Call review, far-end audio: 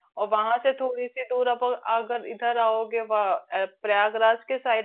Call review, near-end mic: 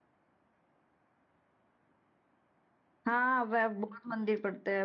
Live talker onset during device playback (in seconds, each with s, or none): 3.1 s